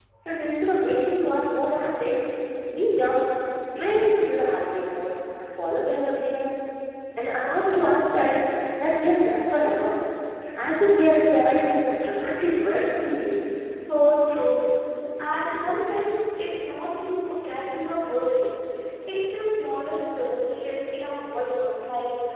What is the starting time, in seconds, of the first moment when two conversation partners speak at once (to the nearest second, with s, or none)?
none